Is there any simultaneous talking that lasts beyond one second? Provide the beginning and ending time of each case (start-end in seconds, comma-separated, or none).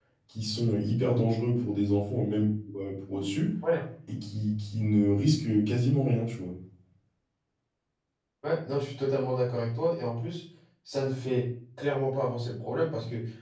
none